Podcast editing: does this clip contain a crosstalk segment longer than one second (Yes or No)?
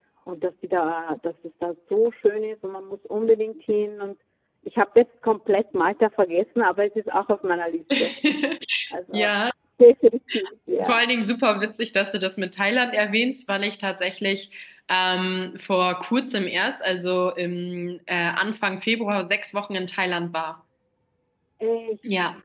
No